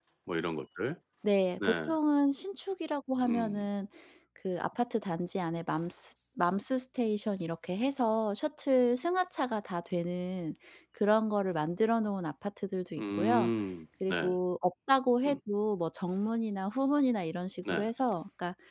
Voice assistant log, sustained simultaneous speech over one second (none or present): none